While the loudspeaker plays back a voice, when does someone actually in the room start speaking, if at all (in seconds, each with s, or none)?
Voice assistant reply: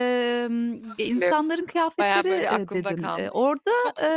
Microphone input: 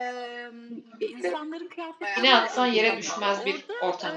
2.1 s